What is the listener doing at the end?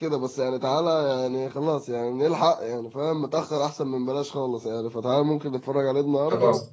listening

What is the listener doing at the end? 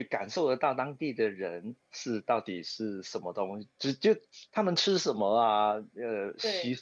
listening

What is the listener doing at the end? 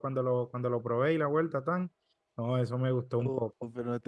taking over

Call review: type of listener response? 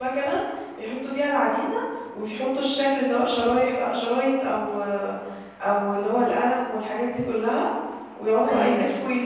listening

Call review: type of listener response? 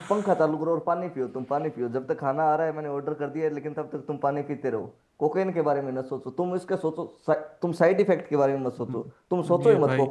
taking over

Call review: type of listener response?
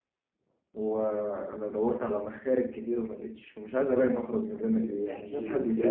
taking over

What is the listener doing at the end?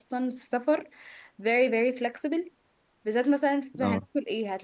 listening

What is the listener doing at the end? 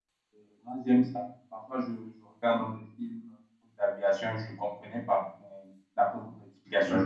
taking over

